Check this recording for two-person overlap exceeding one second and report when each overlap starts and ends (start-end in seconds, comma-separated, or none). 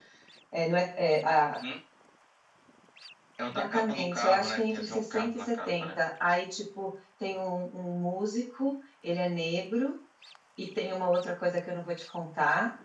3.4-6.0